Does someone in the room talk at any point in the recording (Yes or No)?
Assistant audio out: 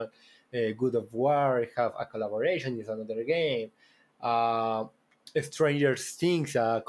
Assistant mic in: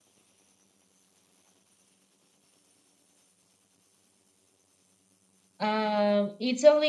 Yes